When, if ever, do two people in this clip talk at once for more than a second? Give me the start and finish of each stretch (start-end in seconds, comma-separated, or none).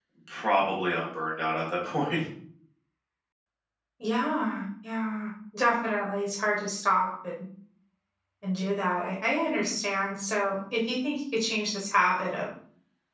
none